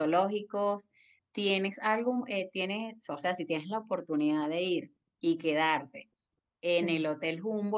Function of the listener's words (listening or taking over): listening